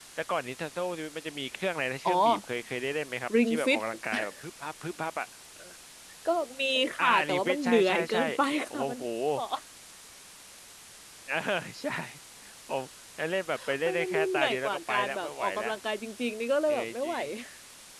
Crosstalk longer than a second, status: present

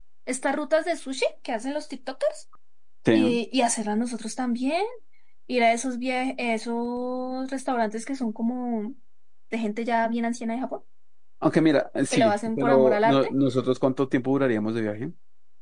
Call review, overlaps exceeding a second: present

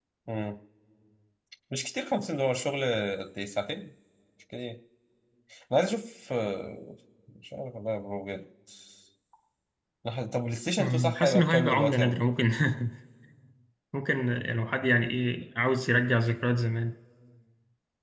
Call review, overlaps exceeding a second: present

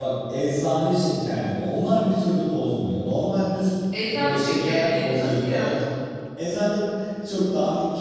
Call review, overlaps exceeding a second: present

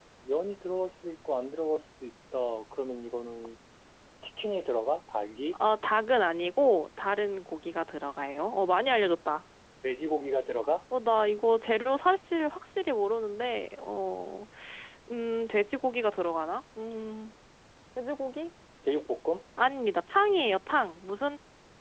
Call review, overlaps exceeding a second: none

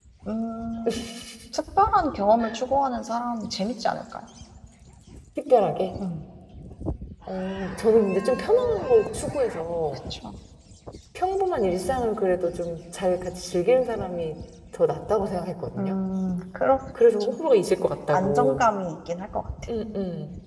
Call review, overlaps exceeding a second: none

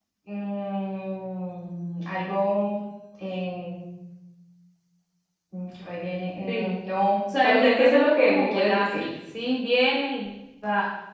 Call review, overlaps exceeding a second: present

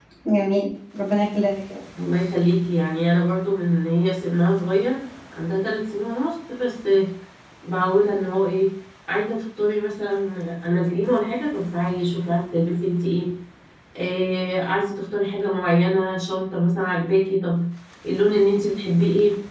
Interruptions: none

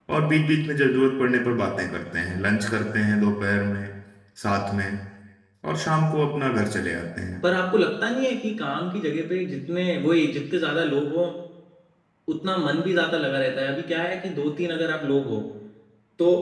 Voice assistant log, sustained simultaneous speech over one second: none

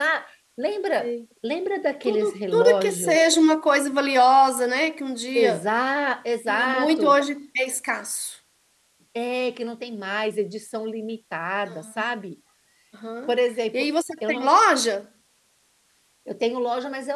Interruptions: present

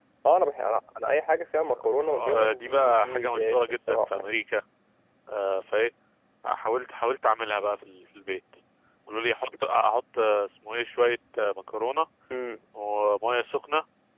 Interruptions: present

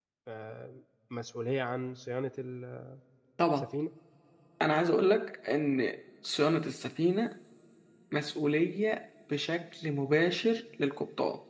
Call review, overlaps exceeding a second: none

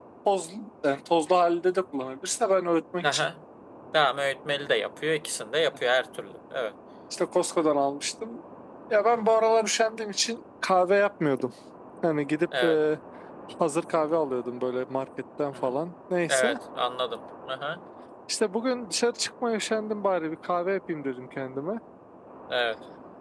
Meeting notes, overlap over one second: none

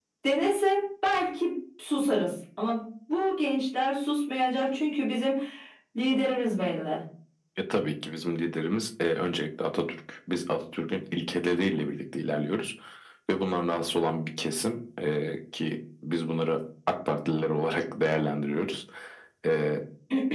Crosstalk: none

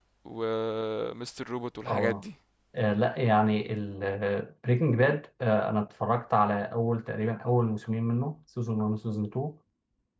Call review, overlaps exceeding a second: none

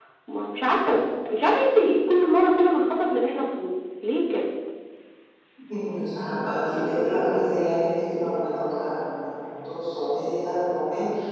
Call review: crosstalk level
none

